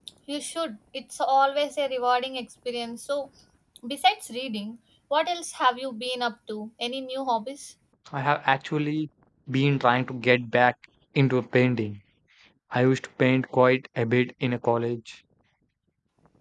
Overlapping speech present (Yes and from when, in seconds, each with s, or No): No